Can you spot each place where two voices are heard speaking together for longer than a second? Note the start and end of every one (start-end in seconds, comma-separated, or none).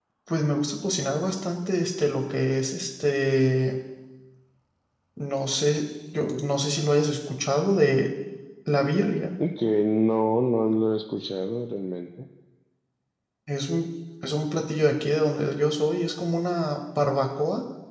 none